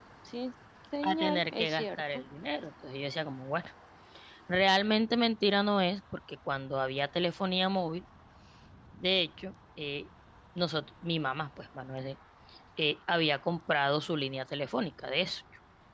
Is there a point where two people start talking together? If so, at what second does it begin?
1.0 s

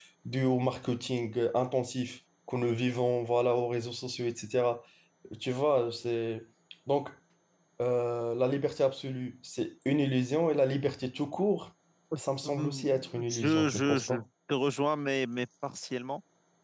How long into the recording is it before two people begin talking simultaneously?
12.6 s

